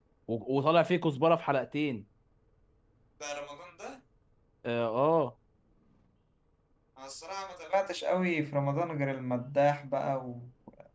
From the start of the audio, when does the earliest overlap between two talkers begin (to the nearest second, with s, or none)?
none